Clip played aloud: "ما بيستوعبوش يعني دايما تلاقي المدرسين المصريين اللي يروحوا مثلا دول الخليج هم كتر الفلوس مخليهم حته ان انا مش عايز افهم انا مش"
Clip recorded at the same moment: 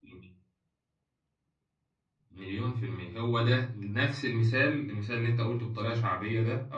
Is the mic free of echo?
Yes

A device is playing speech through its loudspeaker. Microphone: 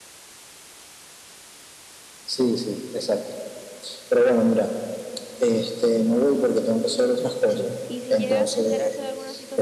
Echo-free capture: No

